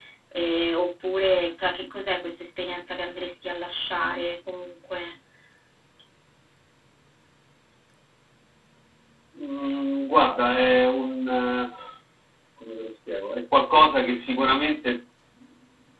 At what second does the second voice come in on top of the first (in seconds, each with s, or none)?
none